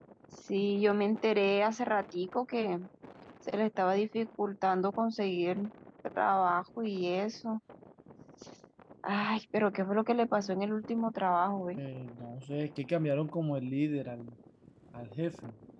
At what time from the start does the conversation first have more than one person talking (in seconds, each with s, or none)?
none